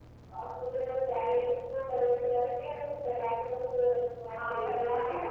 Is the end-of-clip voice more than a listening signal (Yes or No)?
Yes